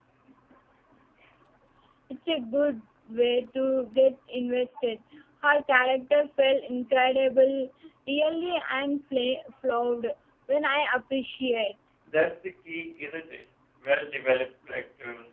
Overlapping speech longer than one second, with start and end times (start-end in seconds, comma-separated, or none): none